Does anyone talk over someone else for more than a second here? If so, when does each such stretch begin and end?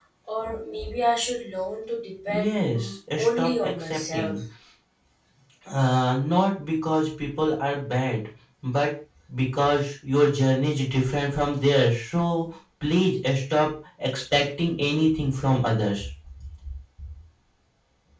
2.3-4.4

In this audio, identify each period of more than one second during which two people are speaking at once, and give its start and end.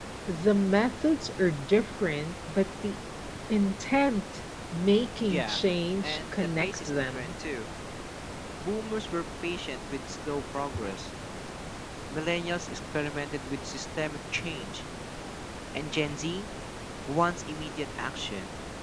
6.0-7.3

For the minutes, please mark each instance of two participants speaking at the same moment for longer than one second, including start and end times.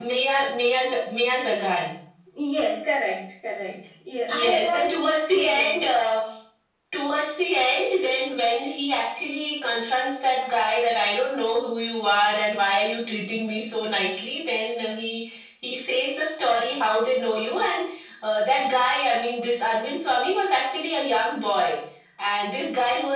4.3-5.8

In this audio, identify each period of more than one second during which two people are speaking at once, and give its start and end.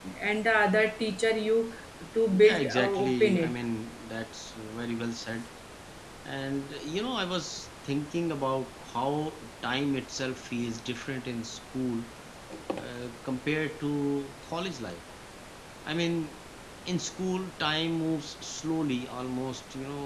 2.3-3.6

